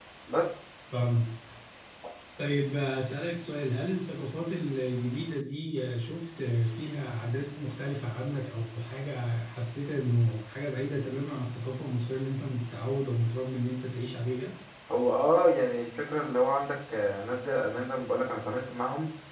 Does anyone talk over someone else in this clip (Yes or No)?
No